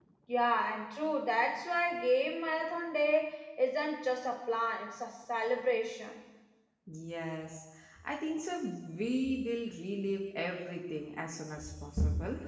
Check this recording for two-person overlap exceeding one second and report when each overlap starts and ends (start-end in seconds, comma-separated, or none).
none